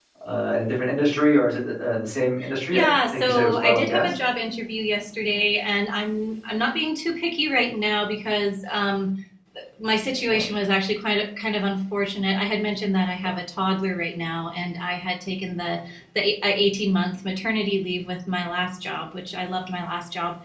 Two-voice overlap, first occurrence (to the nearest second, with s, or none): 3 s